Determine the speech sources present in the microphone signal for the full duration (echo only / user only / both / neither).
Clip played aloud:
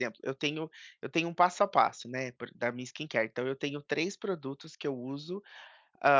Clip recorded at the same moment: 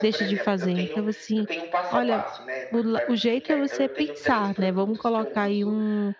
both